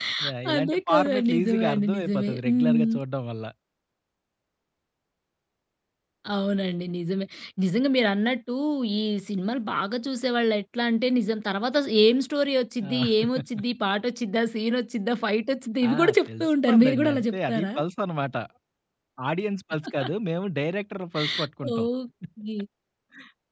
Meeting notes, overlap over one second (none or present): present